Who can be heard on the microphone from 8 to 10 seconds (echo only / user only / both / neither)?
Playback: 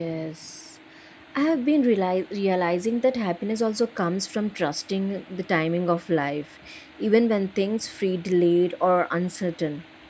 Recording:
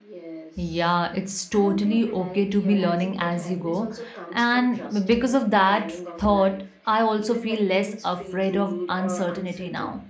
both